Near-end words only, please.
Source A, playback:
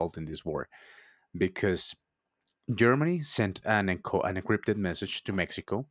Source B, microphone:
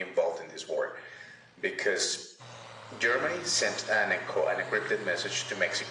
none

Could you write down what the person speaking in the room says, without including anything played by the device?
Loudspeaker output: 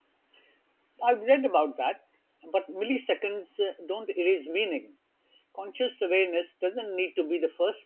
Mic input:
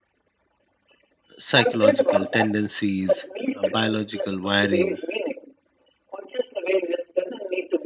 psychological tendencies, uh, biological wiring

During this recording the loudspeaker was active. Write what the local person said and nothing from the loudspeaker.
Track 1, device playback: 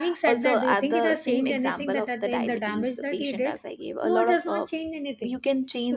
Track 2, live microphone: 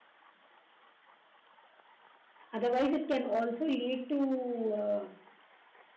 Otherwise, it can also lead to uh,

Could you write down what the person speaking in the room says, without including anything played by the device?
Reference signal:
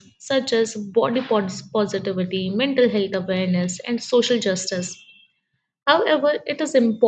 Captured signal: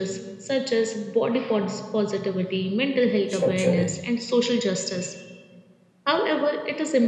structurally.

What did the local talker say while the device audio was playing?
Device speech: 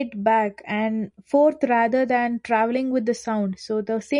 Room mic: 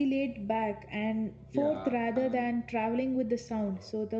Yeah, and

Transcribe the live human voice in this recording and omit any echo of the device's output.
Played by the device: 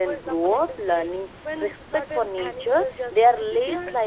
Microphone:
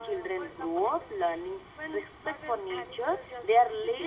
none

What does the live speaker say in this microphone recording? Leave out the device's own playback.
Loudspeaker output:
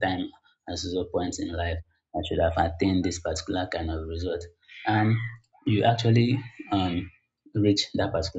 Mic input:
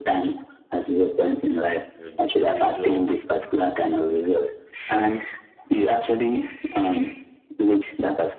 like the pressure

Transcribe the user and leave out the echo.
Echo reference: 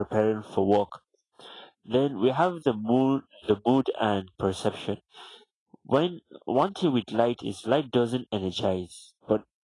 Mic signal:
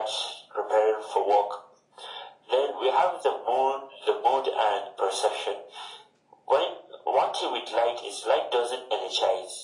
none

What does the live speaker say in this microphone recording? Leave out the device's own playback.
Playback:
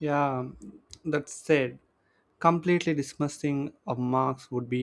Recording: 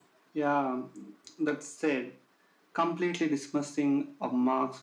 none

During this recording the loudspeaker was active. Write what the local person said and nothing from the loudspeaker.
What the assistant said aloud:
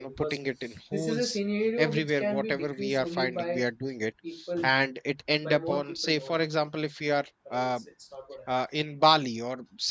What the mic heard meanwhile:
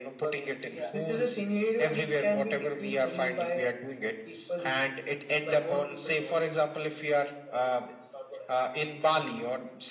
Yeah,

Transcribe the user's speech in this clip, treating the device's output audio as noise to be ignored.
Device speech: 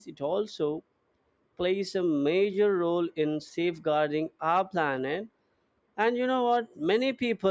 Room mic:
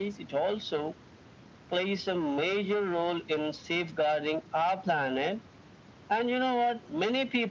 none

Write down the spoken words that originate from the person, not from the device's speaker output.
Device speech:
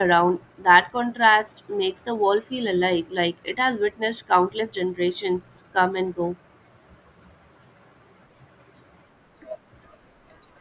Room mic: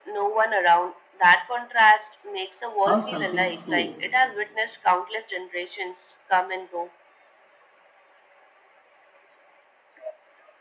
how something so

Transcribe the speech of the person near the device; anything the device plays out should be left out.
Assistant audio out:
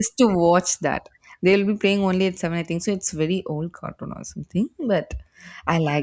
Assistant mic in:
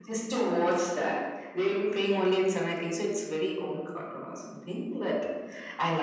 none

